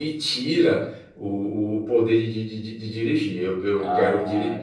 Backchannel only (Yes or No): No